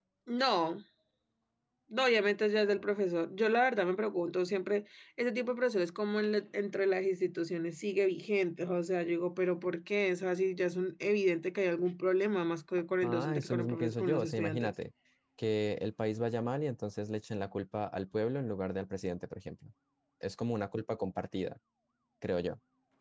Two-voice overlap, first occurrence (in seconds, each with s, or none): 13.0 s